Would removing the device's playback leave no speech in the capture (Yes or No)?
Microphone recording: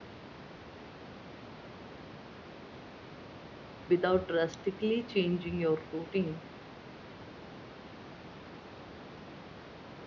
No